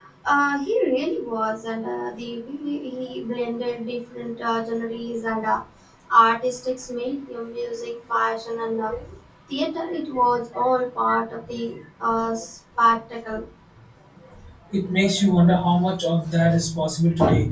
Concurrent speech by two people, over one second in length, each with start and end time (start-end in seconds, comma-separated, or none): none